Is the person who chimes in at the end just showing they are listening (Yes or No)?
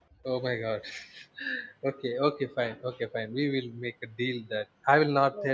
Yes